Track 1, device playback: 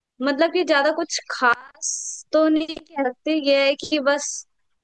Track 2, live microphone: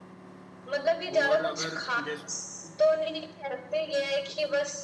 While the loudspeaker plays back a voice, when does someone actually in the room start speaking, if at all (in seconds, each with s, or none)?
1.2 s